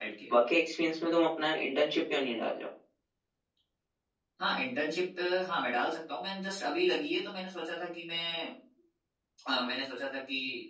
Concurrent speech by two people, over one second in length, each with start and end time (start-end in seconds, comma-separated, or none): none